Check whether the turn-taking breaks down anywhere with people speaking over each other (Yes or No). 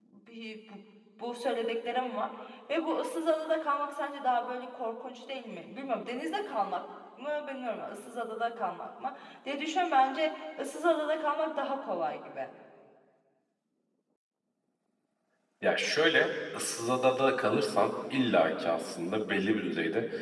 No